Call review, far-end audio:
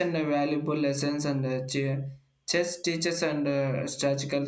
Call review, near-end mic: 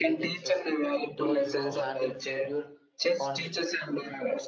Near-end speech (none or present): present